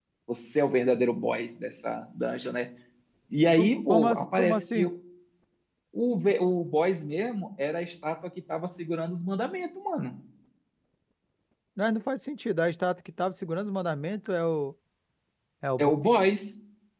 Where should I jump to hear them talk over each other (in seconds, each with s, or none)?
3.6 s